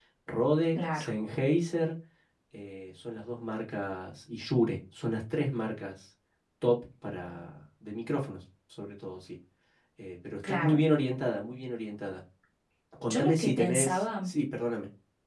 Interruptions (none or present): present